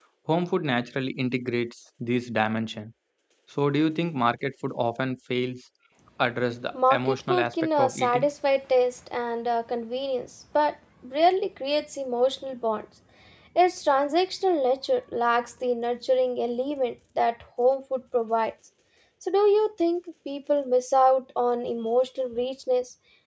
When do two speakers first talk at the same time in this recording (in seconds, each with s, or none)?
6.7 s